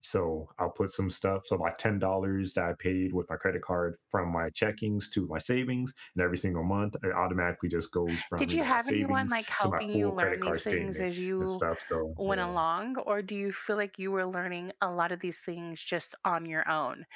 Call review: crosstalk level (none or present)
present